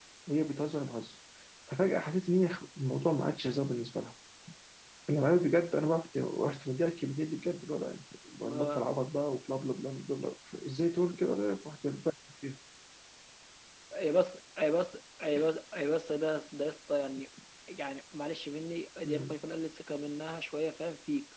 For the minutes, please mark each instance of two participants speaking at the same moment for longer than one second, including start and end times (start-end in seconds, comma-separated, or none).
none